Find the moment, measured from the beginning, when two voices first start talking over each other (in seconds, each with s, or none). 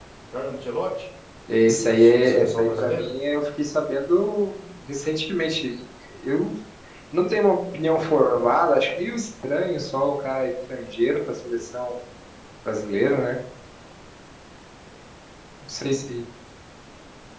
1.8 s